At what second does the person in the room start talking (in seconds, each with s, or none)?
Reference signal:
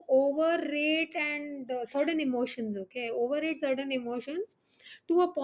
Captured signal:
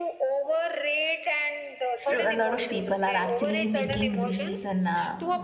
2.0 s